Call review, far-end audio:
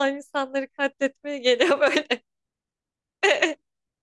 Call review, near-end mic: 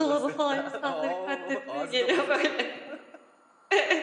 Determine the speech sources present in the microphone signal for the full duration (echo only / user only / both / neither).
both